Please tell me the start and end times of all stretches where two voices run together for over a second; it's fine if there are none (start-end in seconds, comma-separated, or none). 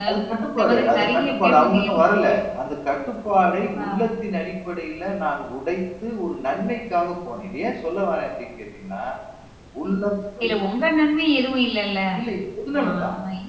0.5-2.4